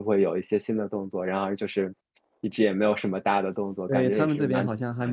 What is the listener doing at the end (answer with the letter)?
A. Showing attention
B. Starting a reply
B